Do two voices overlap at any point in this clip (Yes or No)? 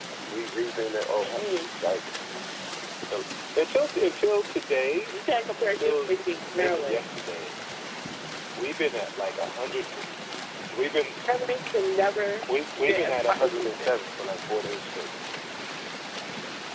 Yes